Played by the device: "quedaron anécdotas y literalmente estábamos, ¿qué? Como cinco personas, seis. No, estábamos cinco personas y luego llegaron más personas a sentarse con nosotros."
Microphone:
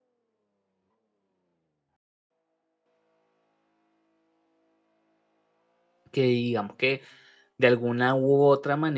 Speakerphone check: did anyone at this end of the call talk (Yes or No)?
Yes